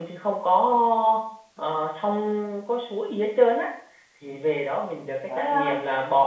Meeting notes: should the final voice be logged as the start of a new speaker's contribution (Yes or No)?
No